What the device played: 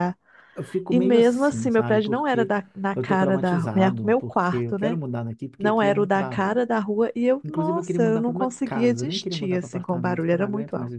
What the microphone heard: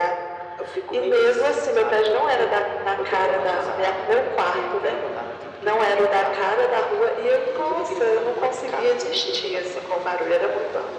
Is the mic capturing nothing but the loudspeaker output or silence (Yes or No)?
Yes